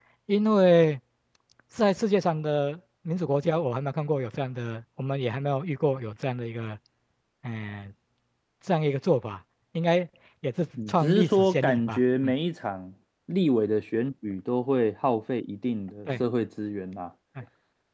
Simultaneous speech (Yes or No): Yes